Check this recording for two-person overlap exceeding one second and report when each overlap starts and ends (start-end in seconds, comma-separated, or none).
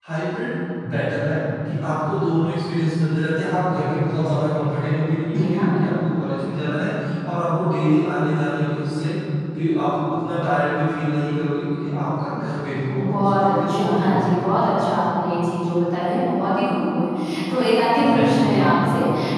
12.9-14.5